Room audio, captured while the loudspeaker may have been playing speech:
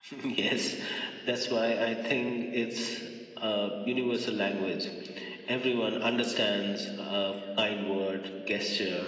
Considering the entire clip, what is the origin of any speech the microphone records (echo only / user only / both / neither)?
echo only